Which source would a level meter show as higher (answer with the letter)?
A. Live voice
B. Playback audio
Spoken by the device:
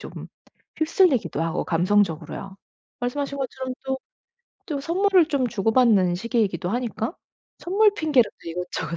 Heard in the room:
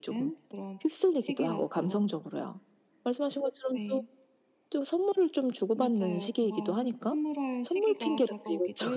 B